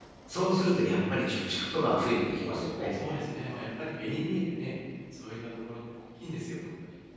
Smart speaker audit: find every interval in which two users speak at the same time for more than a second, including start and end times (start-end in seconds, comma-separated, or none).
none